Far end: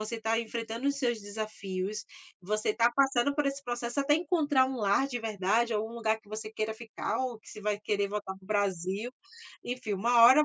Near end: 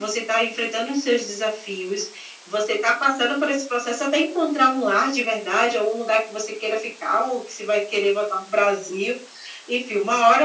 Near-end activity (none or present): none